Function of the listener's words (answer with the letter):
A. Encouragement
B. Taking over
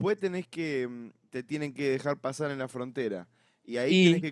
A